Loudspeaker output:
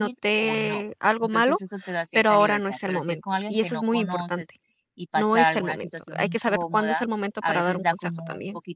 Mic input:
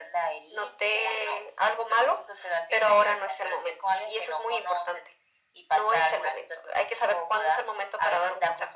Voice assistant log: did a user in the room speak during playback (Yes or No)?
No